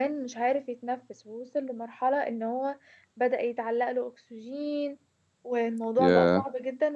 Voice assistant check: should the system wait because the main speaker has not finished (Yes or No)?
Yes